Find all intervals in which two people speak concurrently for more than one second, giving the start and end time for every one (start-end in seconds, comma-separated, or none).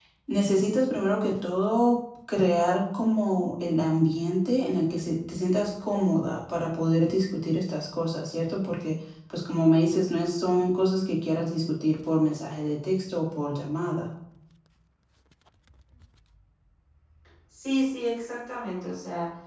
none